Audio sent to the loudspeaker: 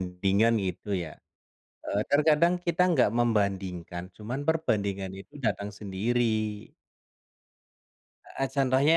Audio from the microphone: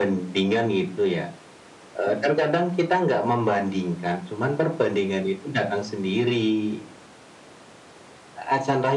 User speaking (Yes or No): No